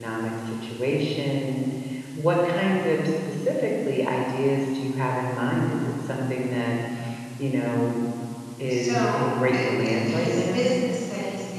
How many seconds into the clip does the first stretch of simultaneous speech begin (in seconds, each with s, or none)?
8.7 s